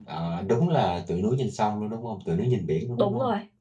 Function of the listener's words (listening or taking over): taking over